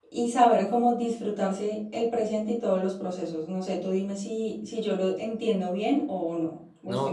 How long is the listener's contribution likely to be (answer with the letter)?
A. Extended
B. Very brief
A